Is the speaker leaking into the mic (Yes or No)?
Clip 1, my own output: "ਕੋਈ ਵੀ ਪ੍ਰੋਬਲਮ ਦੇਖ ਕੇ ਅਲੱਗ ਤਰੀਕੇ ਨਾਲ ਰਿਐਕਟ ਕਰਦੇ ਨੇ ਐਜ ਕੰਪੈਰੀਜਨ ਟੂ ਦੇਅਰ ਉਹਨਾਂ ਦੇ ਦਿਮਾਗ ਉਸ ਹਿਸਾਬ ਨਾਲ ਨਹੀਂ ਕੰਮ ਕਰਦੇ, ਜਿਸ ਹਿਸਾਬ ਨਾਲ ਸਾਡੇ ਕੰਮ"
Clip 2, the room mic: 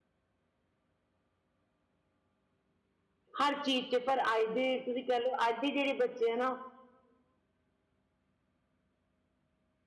No